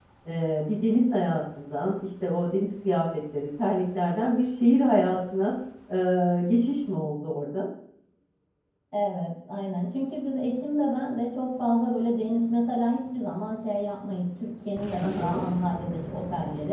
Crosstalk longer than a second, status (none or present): none